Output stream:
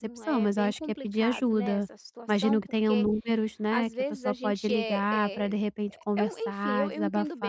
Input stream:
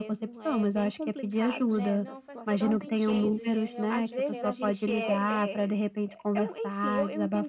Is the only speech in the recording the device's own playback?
No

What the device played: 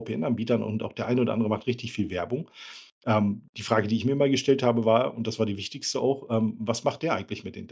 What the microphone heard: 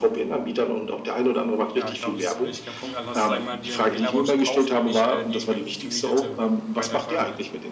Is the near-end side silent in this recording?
No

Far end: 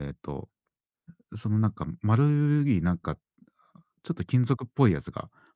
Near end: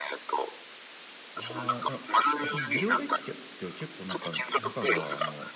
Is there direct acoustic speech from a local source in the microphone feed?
Yes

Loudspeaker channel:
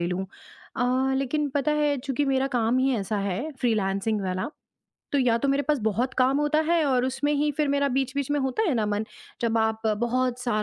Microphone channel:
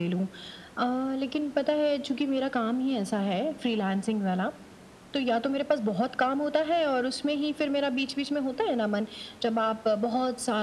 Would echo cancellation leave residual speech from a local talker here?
No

